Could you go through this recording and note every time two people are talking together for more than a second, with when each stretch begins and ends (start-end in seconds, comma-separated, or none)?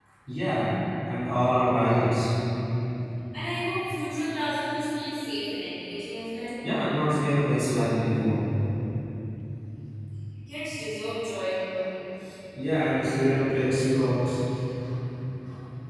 none